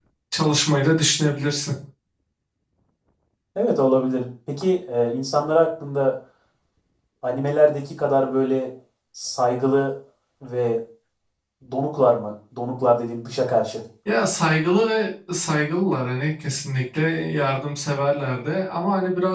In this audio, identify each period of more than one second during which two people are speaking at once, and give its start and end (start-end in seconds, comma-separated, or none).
none